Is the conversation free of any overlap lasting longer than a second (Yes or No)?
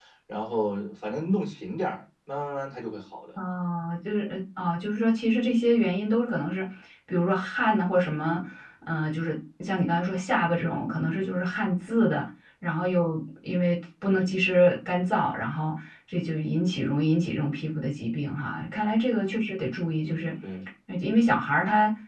Yes